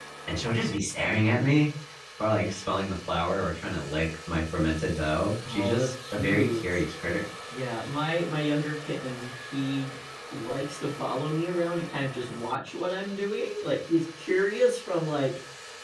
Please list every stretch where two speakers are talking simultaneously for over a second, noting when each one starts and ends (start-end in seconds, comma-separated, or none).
5.5-6.8